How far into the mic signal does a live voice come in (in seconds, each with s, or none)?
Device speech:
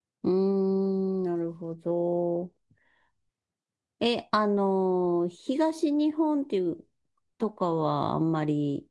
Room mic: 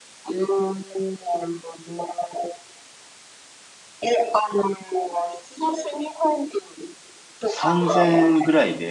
7.4 s